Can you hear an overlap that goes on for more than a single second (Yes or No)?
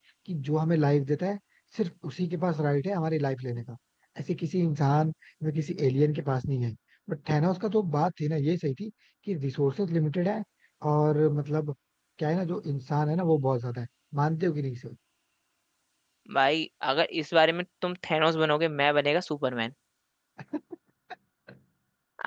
No